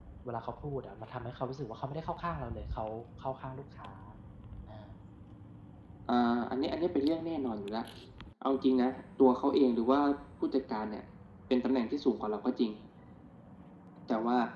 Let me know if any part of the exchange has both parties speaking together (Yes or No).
No